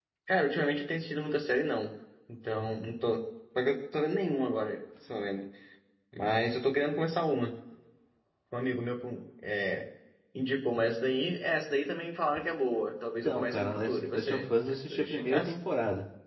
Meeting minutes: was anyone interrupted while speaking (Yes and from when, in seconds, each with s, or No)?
Yes, from 13.2 s